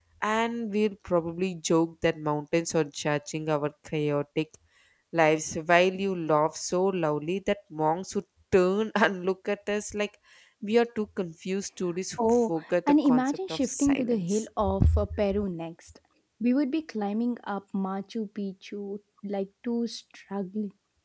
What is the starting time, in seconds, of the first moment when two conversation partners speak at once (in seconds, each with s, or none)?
12.2 s